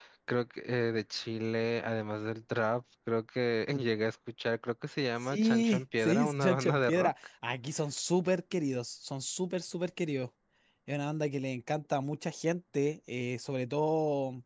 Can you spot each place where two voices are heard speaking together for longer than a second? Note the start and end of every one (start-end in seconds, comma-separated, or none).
5.2-7.1